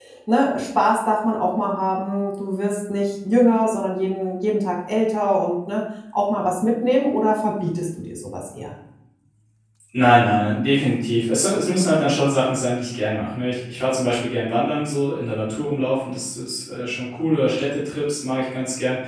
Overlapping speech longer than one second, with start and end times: none

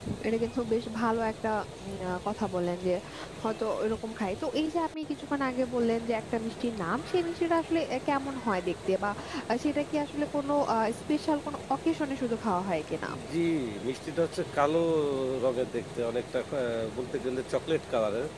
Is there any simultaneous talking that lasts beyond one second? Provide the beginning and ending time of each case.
none

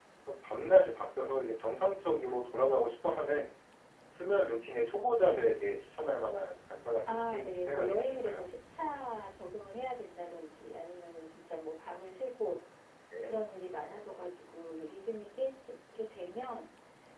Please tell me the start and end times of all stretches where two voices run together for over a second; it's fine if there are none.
7.1-8.5

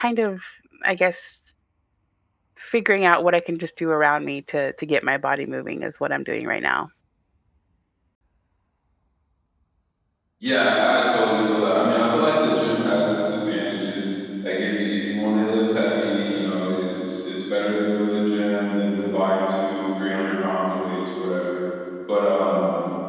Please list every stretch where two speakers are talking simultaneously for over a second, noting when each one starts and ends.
none

